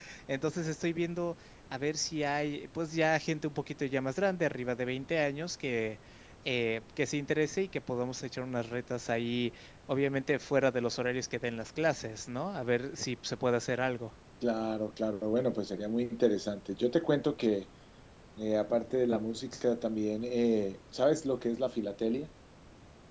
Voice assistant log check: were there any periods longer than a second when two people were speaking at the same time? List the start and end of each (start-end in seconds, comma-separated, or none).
none